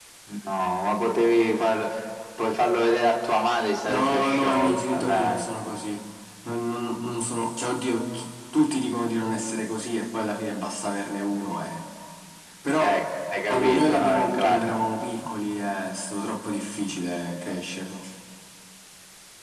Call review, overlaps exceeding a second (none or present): present